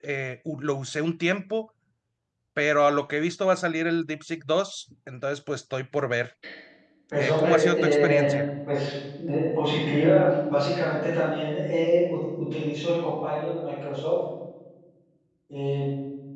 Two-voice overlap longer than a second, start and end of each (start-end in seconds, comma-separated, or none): 7.2-8.4